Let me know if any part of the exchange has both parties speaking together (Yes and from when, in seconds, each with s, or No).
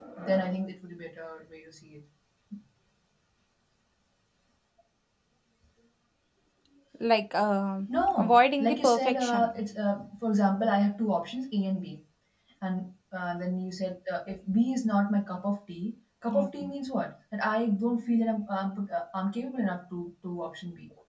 Yes, from 8.2 s